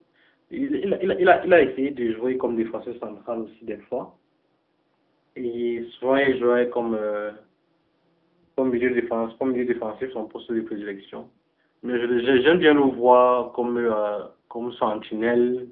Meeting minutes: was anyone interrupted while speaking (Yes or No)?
No